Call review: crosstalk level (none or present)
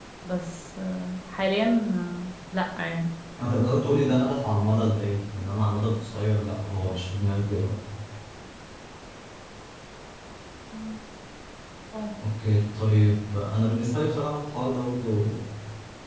none